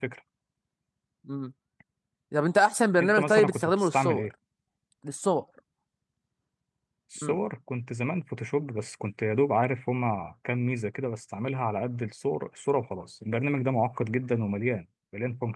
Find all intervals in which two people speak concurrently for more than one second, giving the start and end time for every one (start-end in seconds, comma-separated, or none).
3.0-4.3